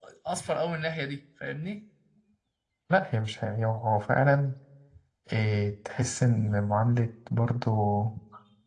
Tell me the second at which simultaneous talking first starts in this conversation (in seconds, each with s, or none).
none